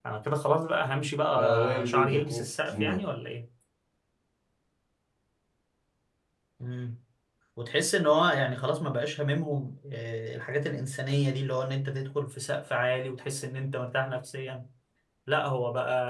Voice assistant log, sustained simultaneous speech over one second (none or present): present